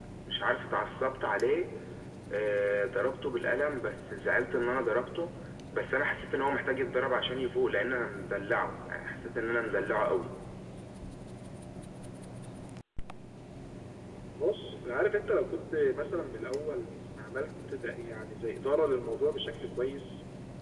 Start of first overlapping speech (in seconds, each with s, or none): none